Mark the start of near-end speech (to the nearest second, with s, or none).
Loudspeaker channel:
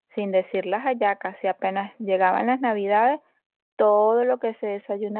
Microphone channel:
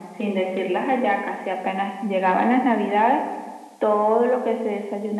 none